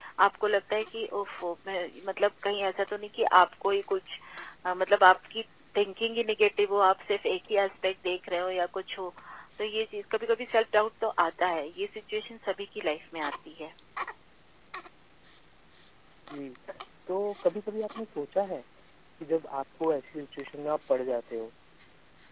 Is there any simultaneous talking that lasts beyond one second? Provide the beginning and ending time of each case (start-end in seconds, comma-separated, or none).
none